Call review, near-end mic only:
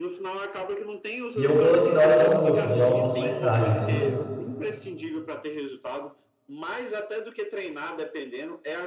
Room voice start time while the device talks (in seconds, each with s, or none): 1.3 s